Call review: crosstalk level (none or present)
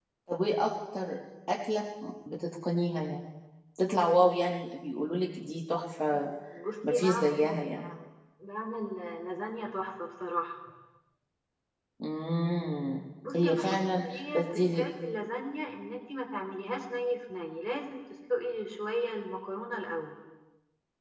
present